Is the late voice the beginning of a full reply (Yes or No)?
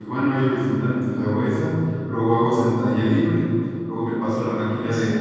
No